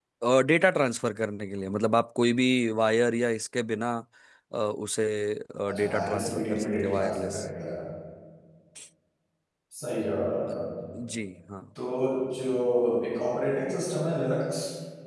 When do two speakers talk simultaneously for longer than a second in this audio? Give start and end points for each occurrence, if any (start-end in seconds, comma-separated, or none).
5.8-7.4